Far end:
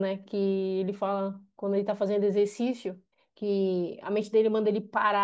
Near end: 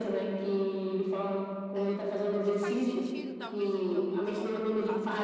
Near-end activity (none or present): present